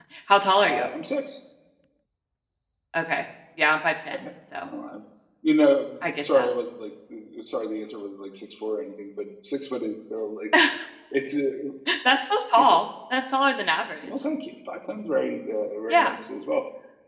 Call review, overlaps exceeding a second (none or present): none